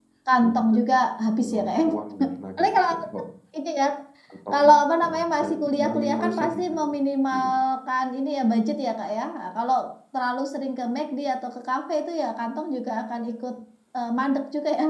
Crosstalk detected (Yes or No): Yes